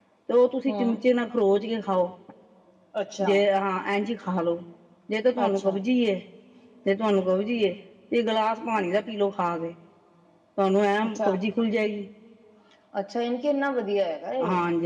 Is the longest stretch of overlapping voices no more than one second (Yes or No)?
Yes